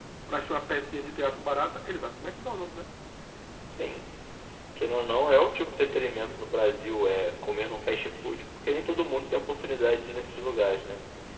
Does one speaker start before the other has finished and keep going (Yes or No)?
No